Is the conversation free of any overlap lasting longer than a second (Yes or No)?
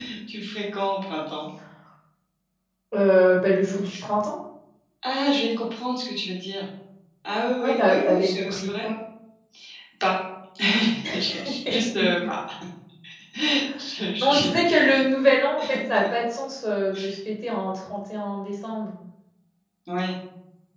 No